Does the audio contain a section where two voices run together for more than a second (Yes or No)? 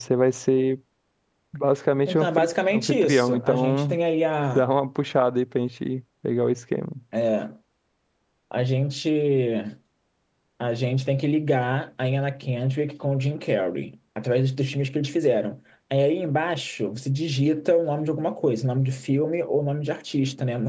Yes